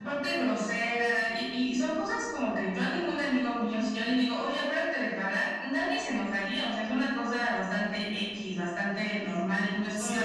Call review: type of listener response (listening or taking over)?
taking over